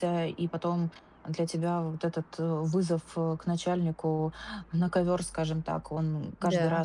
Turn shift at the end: No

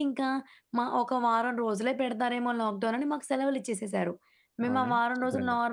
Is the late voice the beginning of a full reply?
No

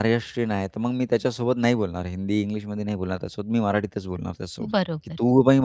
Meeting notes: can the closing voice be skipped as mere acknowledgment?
Yes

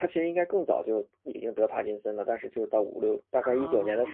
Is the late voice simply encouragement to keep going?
Yes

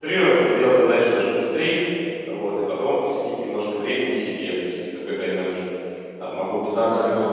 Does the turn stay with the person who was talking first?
Yes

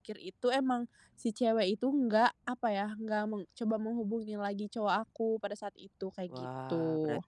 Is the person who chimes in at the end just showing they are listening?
No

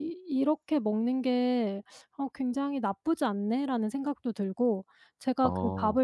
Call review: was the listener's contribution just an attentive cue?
Yes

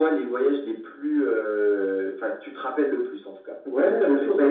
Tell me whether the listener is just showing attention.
No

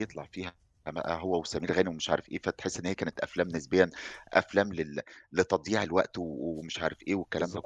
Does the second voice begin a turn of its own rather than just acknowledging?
No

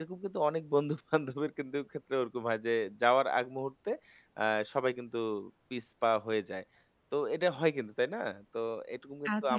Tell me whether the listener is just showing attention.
No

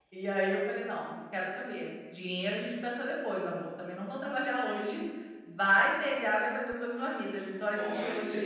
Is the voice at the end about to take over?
Yes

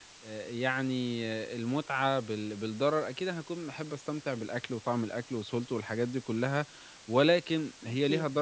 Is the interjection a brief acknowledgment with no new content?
Yes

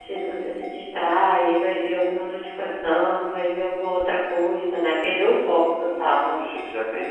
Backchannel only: No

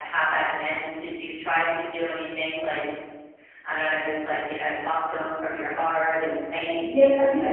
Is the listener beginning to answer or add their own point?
Yes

